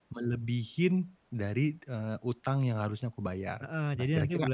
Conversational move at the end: taking over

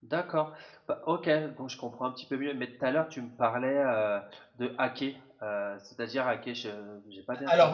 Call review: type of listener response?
taking over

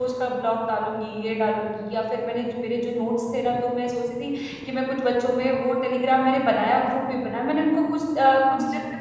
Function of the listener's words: listening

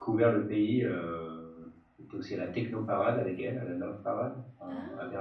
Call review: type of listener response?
taking over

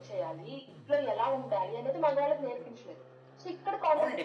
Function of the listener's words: taking over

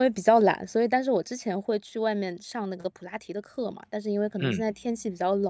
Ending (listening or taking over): listening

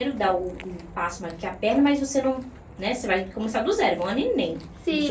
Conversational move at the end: taking over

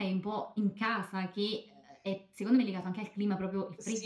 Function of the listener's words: taking over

